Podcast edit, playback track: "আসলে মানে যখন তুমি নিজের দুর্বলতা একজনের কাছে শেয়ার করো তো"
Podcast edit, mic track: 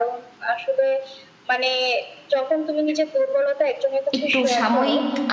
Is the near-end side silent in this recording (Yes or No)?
No